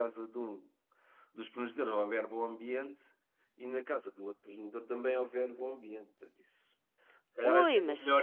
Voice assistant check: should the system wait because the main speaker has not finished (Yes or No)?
Yes